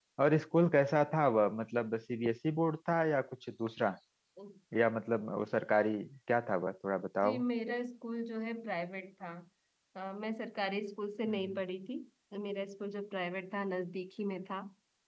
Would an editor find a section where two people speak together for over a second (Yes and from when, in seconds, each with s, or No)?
No